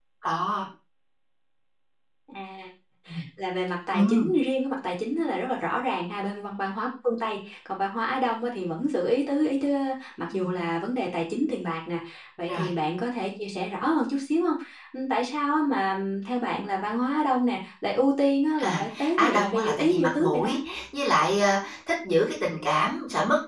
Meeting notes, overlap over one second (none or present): present